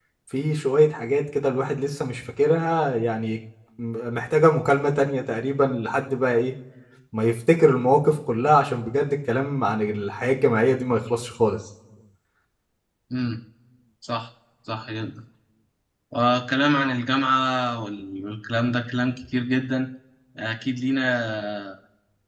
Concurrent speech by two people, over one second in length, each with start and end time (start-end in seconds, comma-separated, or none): none